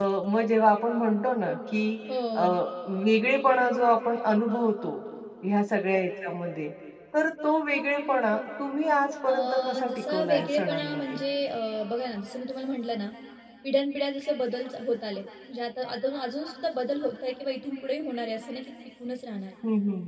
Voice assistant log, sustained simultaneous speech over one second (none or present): present